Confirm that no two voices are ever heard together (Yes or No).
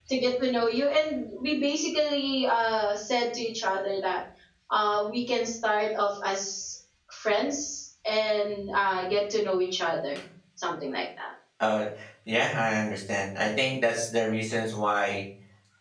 Yes